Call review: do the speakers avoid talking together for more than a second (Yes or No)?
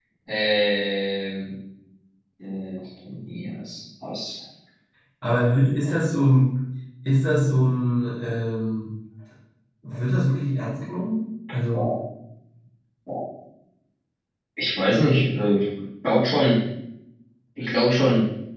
Yes